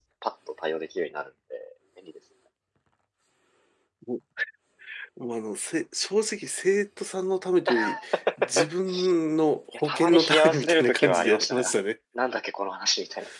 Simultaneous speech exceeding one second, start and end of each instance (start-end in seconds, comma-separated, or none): 9.8-11.8